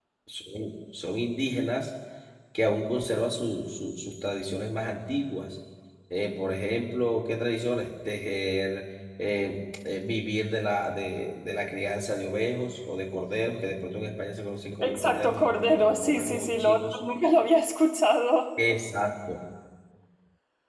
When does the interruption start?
15 s

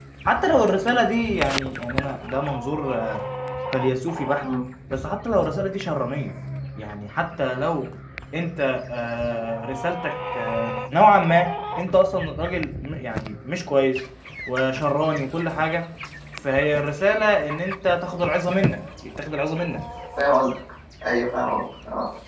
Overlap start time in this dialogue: none

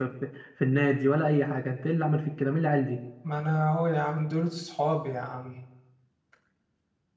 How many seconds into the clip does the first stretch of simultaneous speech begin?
none

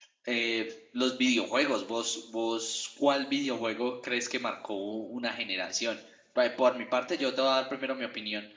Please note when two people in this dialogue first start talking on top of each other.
none

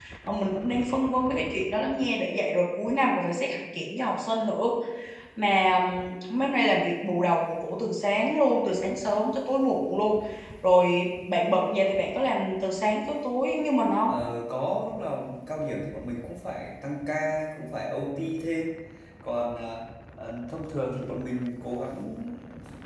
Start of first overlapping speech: none

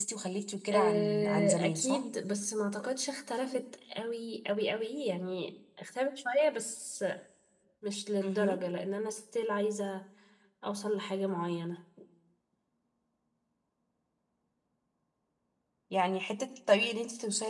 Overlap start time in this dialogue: 1 s

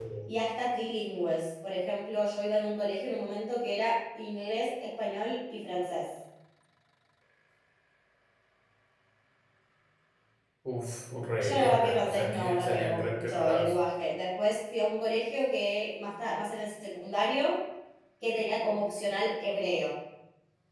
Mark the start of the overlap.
11 s

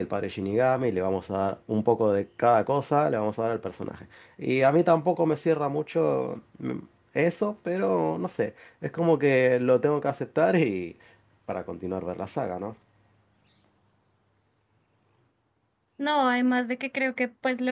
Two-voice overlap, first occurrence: none

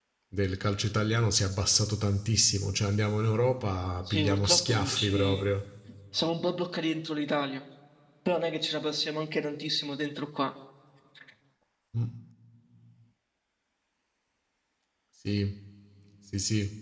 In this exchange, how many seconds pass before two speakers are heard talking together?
4 s

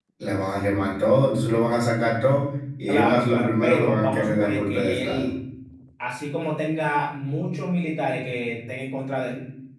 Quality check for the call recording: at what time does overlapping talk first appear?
3 s

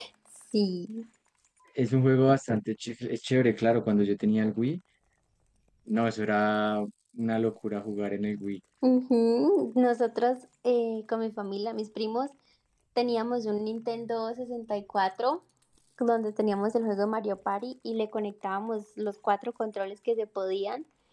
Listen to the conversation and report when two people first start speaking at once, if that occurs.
none

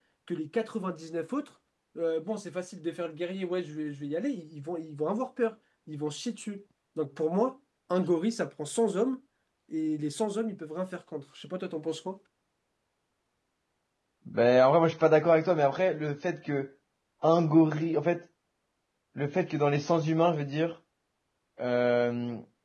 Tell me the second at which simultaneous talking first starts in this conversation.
none

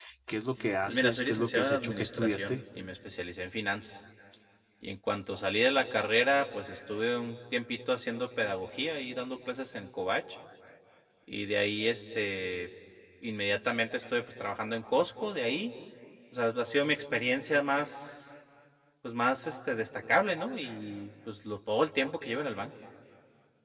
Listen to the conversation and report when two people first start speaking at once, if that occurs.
1 s

